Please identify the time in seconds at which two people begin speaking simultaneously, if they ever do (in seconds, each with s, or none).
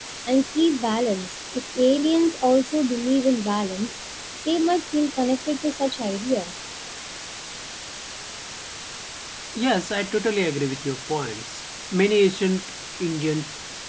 none